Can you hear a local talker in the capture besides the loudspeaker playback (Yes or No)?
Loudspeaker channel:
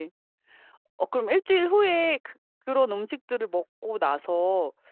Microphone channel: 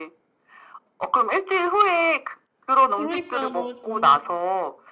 Yes